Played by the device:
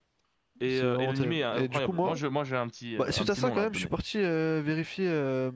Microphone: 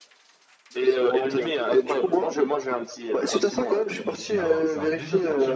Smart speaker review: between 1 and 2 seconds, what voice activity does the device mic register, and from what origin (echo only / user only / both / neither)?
echo only